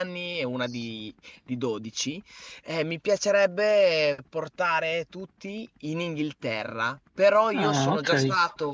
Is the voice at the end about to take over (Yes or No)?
No